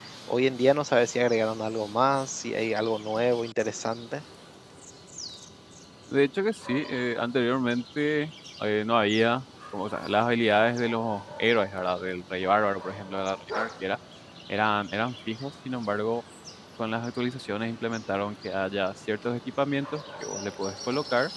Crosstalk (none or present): none